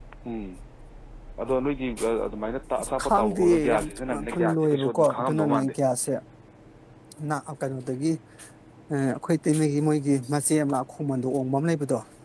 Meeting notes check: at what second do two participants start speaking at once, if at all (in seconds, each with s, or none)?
2.8 s